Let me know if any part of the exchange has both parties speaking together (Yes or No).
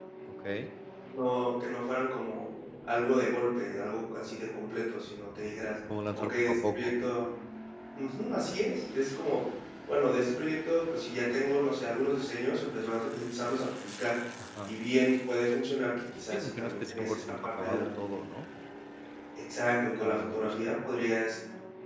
Yes